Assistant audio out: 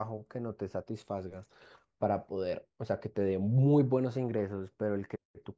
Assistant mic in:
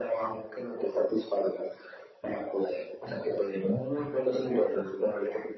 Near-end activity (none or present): none